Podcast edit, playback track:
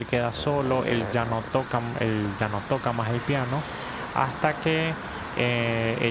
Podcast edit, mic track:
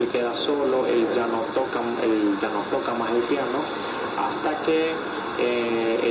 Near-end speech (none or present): none